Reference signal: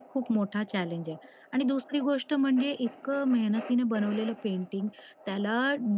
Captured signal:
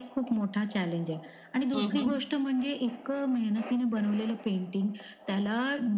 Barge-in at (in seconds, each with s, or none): 1.7 s